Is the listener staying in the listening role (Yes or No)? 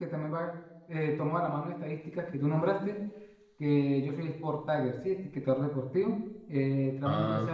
Yes